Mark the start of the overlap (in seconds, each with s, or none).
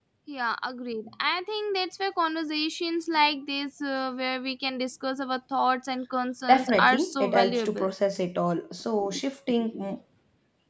6.5 s